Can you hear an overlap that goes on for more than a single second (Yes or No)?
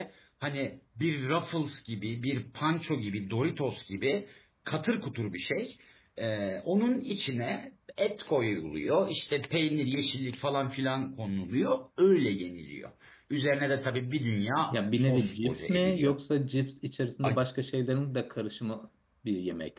Yes